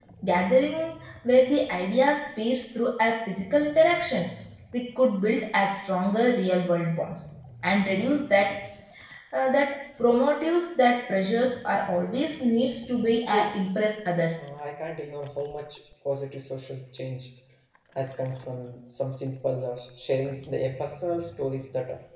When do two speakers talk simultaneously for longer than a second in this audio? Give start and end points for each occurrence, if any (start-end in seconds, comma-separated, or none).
none